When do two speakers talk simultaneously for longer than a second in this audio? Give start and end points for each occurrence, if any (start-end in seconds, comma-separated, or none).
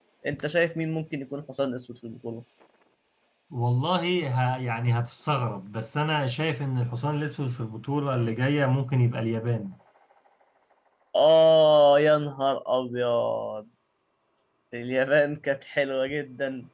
none